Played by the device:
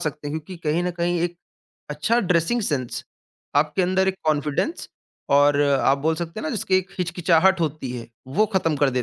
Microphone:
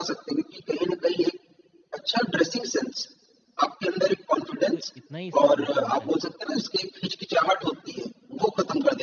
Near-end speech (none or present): present